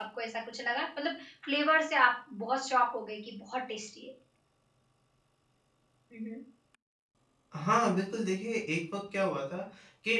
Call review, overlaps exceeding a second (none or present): none